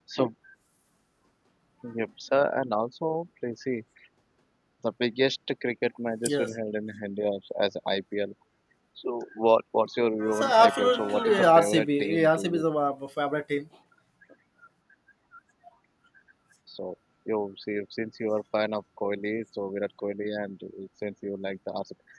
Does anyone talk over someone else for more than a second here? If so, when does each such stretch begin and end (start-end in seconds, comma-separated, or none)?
10.3-12.6